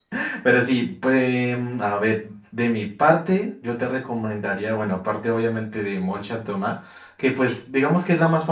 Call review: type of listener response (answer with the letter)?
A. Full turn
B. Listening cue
B